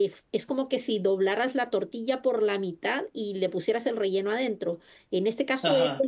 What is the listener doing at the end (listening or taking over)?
listening